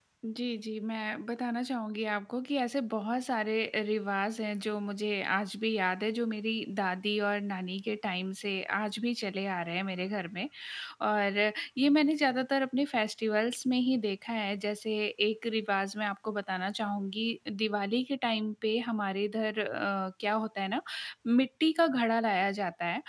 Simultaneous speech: No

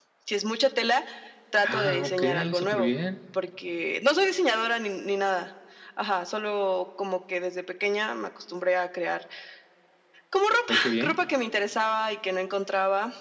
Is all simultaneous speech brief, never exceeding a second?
No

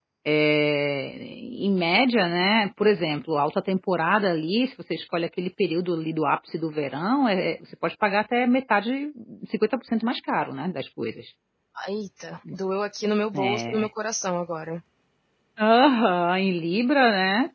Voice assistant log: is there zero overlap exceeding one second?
Yes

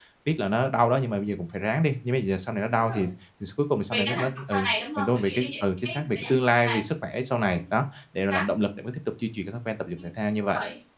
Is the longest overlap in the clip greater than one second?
Yes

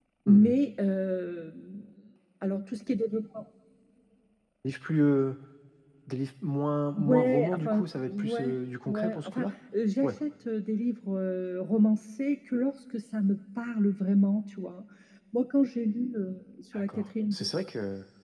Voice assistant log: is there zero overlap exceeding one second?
No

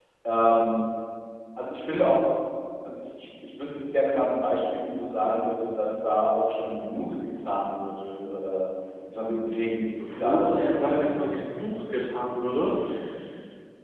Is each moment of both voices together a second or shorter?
No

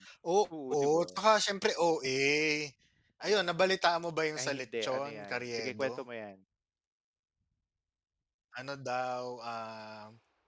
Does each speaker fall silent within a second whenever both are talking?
No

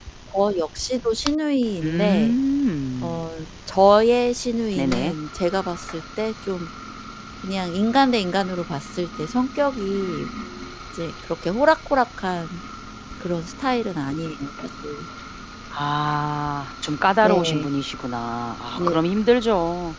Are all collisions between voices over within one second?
Yes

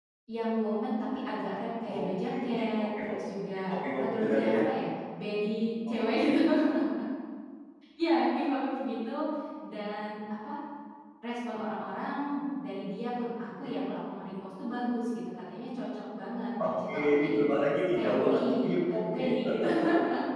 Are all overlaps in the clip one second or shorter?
No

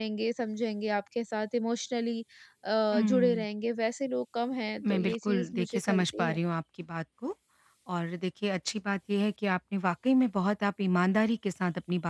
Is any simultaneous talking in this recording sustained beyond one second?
Yes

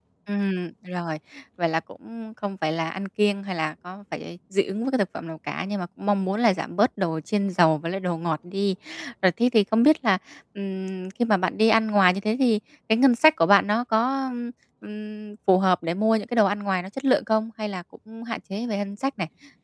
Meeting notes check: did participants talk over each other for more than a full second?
No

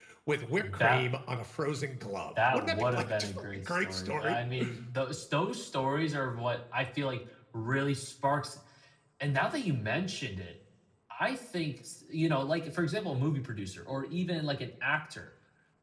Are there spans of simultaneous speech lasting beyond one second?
Yes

